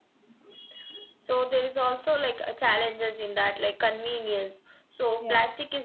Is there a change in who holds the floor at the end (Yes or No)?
No